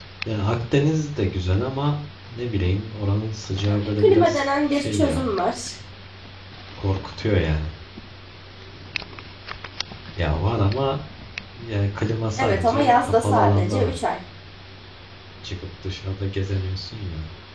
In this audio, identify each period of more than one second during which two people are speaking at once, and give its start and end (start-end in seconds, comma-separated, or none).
3.7-5.3, 12.4-14.0